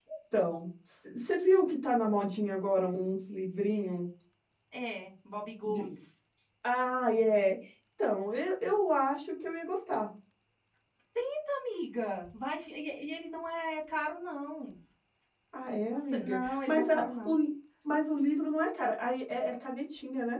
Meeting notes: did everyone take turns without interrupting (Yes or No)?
No